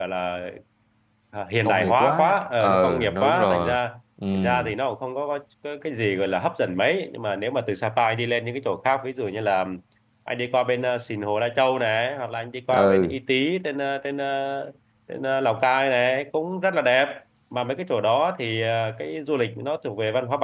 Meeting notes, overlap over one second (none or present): present